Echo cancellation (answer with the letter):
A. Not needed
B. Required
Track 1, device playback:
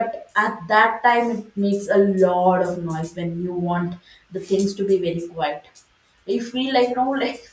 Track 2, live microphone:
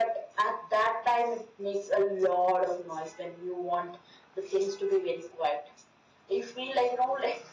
B